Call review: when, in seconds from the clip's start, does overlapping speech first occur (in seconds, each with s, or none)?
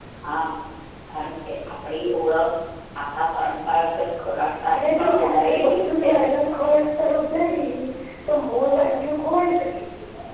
4.7 s